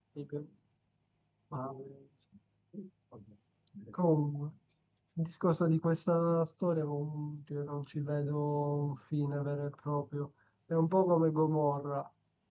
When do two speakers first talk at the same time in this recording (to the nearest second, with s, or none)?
none